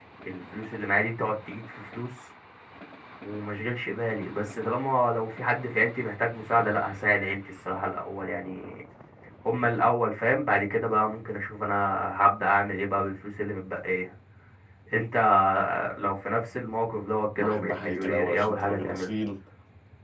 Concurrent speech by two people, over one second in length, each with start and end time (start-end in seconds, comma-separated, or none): 17.4-19.1